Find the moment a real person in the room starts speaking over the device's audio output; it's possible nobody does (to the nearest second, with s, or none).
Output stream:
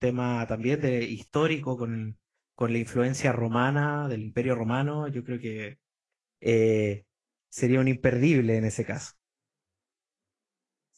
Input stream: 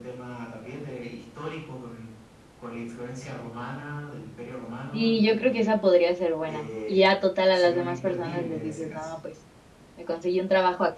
5 s